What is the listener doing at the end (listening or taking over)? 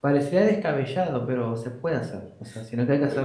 listening